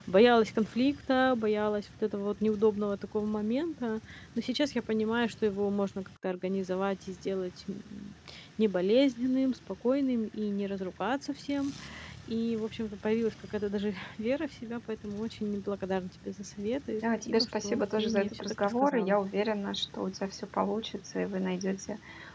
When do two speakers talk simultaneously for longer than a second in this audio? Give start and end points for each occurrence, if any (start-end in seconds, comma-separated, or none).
17.3-19.2